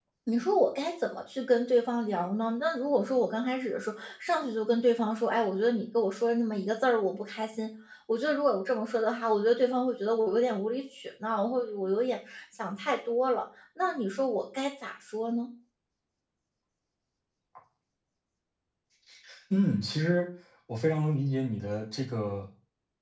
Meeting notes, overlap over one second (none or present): none